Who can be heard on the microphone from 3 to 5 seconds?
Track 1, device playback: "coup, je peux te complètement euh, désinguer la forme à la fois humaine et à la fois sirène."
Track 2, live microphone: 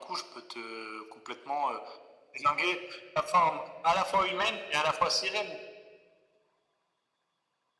echo only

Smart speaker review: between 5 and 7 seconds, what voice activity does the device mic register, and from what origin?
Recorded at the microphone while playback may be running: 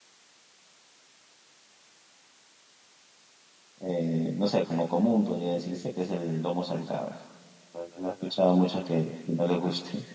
user only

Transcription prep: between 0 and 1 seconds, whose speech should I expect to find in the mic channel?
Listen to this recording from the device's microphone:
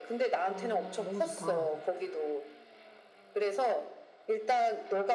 both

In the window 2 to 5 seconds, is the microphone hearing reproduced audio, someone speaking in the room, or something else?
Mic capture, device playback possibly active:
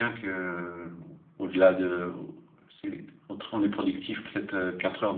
user only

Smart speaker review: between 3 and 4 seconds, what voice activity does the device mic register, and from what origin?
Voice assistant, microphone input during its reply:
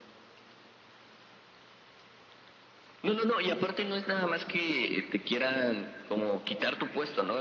echo only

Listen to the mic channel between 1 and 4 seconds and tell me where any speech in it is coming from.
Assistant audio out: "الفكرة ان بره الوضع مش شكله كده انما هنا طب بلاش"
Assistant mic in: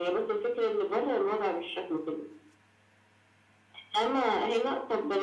echo only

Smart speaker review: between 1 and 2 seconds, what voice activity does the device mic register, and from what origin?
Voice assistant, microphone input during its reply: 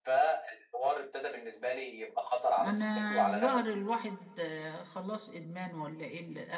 echo only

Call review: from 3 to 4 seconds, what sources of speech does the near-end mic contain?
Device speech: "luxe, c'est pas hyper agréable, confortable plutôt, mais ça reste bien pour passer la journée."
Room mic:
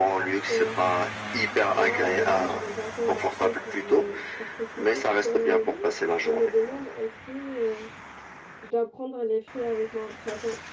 both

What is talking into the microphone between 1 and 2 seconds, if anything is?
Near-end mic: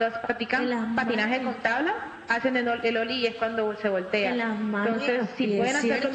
echo only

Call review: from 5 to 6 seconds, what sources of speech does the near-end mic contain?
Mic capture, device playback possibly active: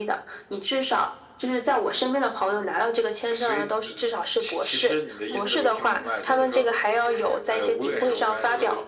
both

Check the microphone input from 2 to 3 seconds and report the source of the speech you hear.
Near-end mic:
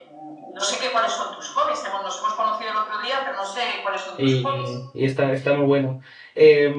echo only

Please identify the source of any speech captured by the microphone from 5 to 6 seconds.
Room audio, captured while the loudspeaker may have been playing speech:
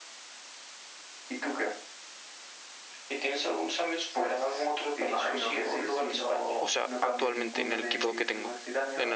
echo only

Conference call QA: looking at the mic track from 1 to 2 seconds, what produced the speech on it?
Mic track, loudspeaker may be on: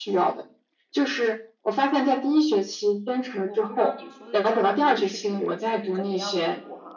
echo only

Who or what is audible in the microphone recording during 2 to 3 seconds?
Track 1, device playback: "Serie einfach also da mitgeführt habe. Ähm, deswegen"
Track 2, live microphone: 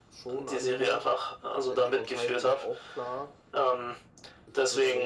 both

